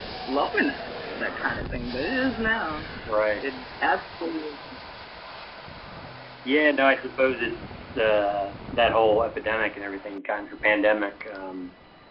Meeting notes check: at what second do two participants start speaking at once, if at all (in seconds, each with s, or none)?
none